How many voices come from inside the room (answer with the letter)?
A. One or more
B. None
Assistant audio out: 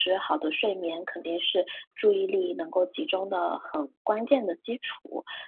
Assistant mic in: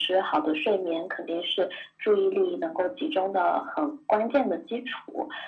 B